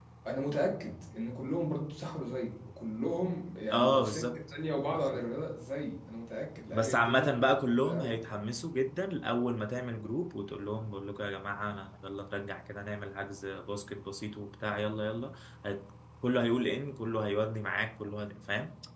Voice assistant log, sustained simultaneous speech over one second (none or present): present